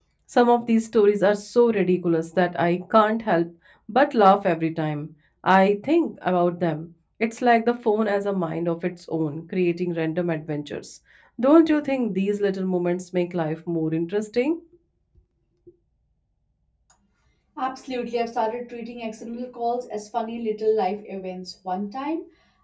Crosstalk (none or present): none